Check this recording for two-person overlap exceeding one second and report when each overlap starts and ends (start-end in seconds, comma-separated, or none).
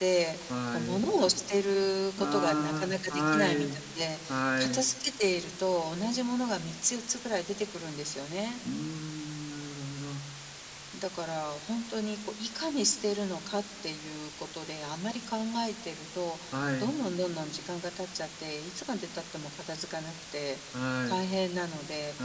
2.2-3.8